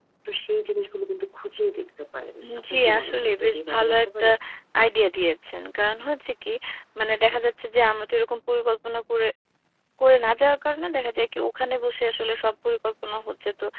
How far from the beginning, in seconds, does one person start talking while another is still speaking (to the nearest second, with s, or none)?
2 s